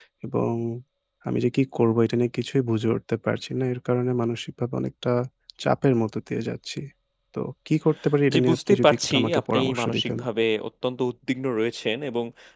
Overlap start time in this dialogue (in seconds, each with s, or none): 8.3 s